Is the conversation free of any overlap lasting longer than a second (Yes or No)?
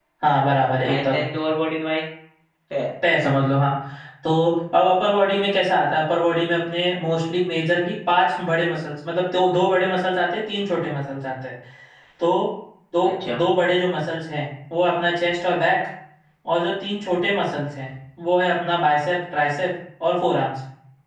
Yes